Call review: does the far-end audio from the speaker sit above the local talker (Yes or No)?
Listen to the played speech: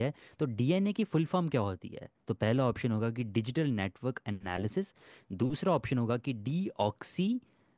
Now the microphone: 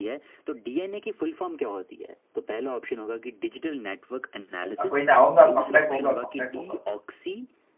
No